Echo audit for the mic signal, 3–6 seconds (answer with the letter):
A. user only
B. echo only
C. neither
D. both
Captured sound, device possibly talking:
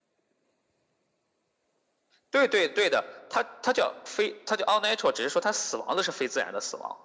B